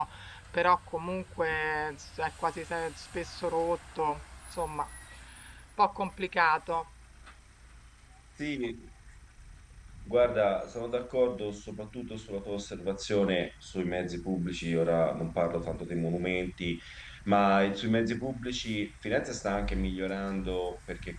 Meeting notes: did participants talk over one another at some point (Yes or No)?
No